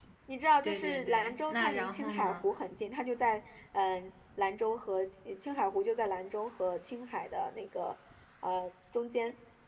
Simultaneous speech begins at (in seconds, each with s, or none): 0.6 s